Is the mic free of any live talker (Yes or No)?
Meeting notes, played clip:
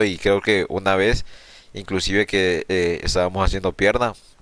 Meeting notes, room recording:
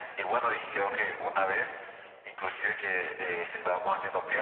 Yes